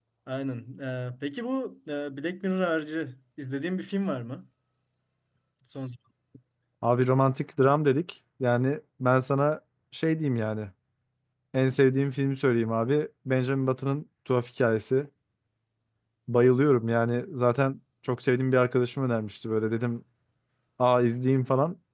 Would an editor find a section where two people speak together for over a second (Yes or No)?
No